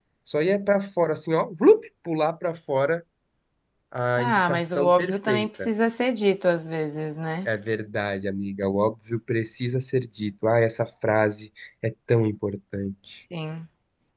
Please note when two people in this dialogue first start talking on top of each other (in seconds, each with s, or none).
4.2 s